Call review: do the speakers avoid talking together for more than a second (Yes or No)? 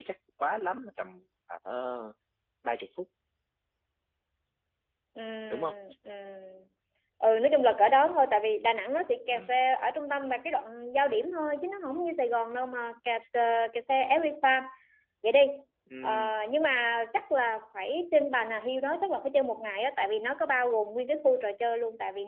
Yes